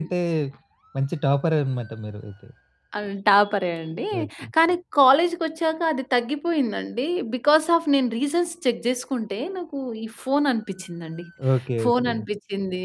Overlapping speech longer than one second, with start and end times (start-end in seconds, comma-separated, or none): none